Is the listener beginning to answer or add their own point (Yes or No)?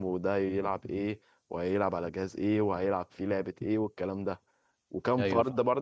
No